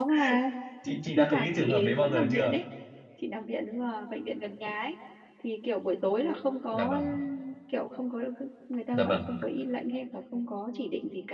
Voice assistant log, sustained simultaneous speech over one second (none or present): present